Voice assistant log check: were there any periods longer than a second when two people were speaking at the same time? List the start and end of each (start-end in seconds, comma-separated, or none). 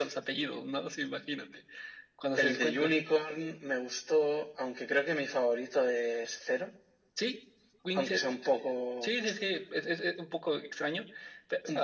none